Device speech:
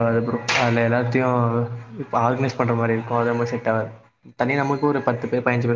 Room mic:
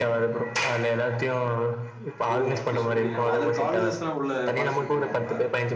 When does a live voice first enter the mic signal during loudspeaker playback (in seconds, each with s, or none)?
2.4 s